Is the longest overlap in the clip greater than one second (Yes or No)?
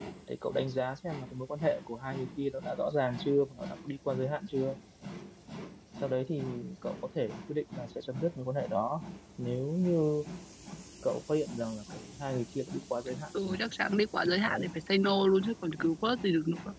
No